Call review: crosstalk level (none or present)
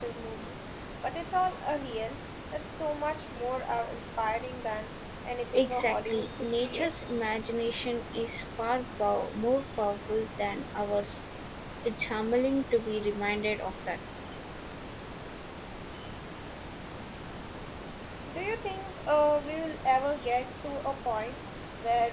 present